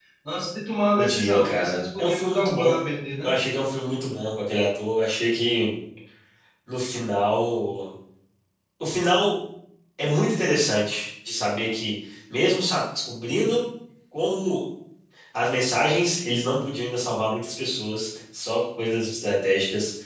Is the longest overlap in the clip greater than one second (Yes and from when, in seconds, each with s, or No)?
Yes, from 1.0 s